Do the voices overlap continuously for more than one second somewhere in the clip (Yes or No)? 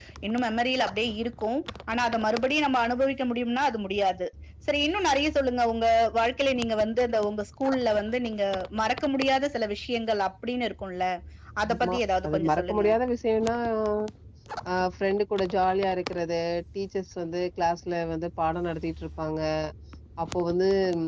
Yes